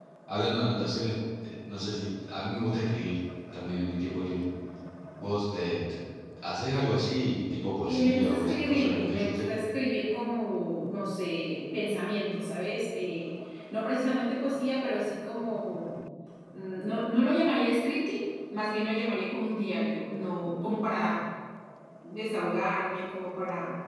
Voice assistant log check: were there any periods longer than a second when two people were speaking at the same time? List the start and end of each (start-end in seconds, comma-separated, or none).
7.8-9.4